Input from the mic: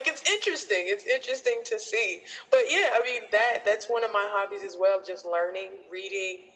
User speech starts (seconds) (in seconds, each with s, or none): none